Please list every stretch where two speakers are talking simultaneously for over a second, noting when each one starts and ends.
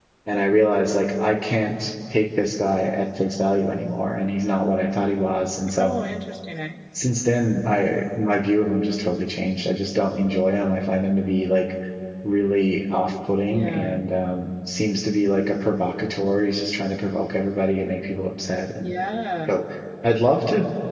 none

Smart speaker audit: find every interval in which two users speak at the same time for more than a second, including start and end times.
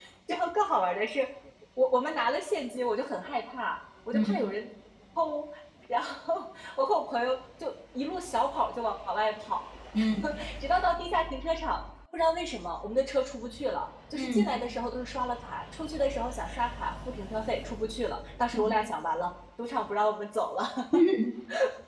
none

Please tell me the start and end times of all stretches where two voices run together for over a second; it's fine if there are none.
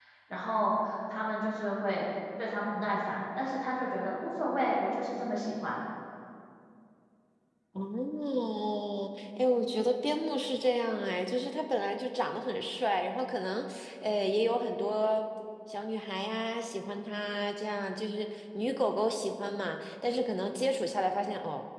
none

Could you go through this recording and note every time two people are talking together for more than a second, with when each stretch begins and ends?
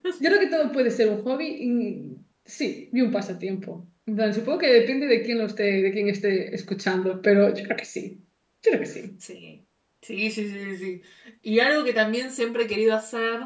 none

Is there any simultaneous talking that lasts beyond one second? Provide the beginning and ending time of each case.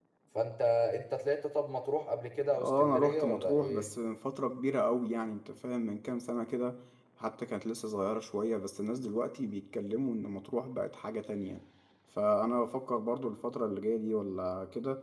2.6-3.9

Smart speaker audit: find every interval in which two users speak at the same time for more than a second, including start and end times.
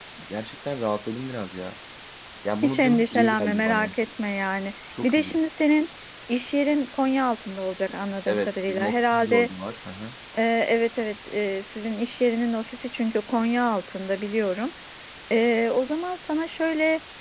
2.6-3.9, 8.3-9.5

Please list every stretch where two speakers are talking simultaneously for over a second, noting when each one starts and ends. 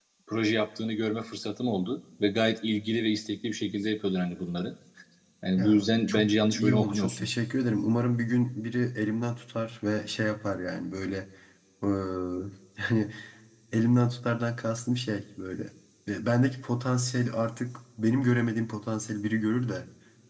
5.6-7.3

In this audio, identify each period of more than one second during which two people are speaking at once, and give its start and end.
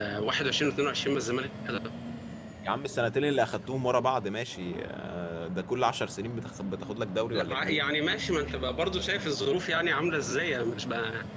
none

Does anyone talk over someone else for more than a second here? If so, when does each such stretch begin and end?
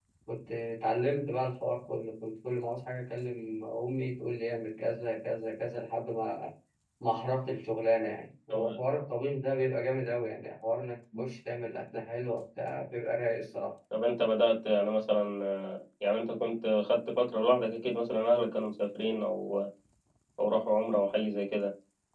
none

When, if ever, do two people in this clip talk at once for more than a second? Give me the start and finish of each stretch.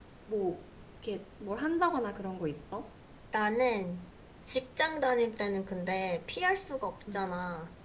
none

